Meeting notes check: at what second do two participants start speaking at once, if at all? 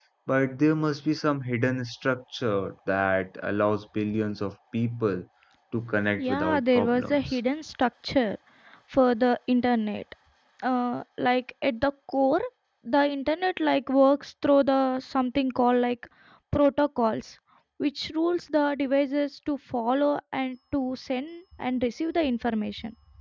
6.2 s

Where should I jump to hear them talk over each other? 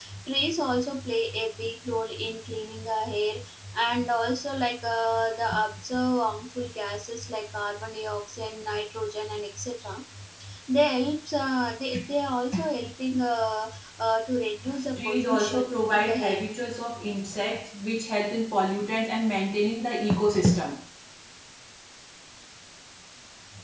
15.0 s

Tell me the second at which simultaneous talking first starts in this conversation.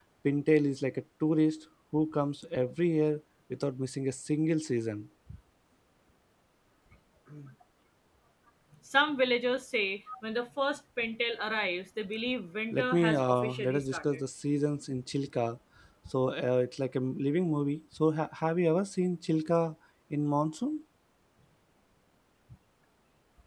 12.7 s

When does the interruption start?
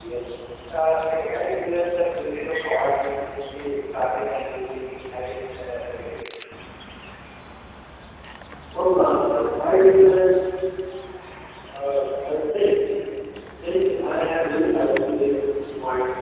none

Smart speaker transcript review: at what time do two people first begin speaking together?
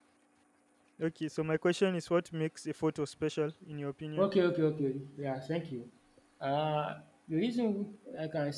none

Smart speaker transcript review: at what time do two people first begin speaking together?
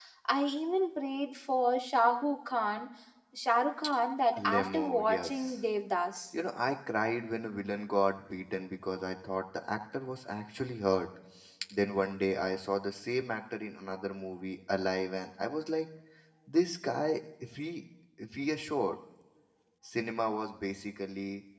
4.3 s

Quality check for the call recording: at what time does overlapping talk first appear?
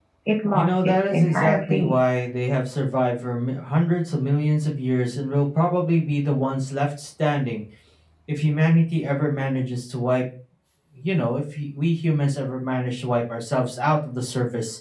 0.5 s

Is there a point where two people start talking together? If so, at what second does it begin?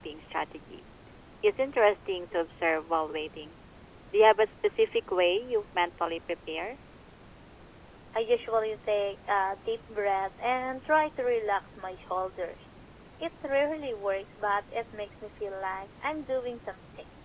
none

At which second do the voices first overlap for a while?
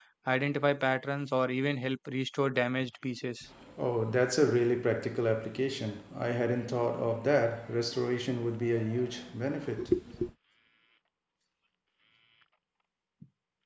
none

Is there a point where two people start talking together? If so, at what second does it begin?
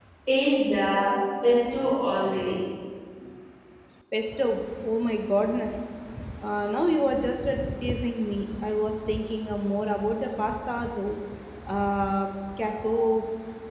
none

